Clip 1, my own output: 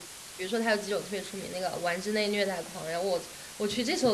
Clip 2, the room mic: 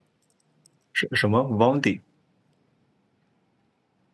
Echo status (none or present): none